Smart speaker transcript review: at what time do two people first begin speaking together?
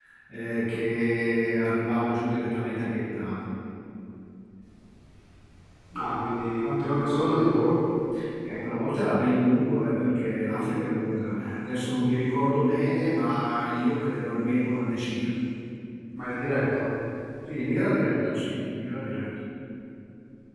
none

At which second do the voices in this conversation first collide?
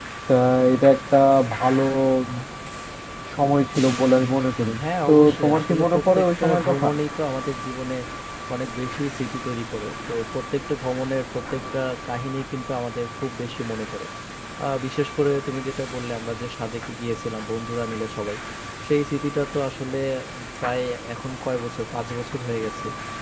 4.8 s

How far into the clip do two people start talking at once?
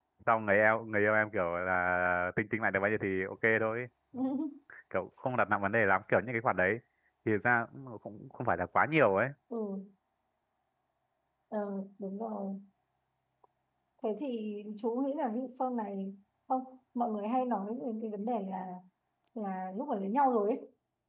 none

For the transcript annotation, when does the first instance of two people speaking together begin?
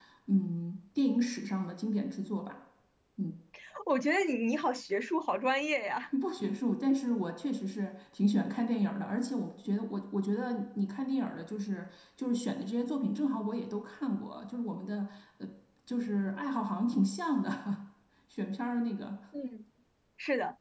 none

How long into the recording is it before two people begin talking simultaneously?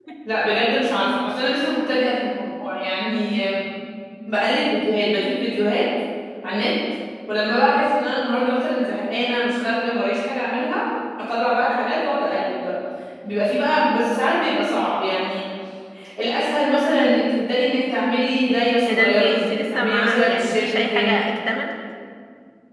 18.9 s

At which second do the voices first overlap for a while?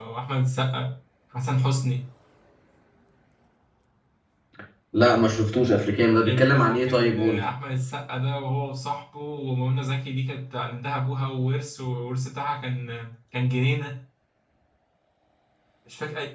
6.2 s

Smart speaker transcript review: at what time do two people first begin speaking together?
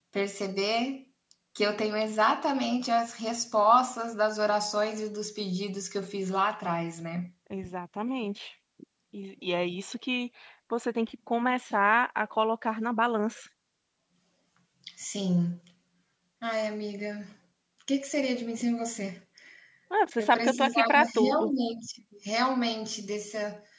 20.2 s

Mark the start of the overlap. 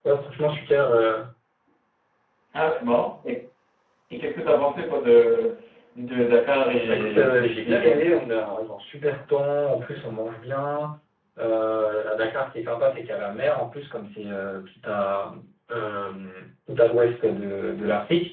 6.9 s

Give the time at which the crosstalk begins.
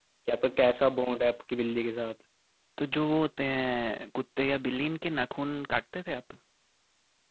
none

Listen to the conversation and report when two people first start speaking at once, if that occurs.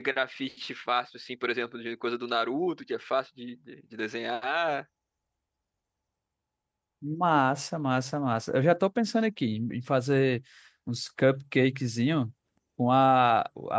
none

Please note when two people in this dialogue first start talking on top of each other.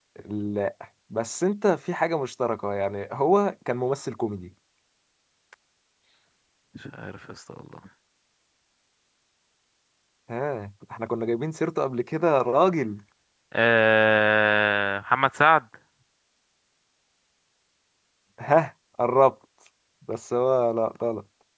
none

